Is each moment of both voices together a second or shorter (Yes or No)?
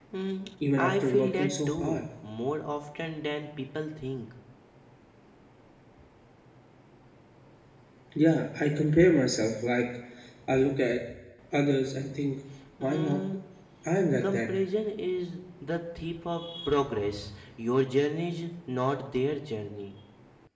No